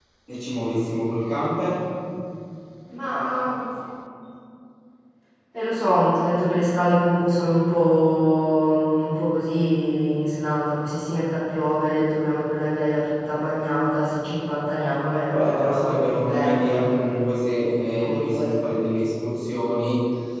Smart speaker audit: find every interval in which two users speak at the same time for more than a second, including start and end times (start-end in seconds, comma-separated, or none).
15.3-16.7